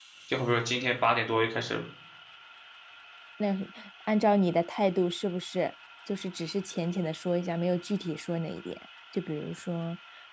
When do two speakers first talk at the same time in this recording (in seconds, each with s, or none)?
none